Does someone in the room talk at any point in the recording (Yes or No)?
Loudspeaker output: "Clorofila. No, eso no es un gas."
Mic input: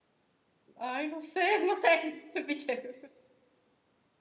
Yes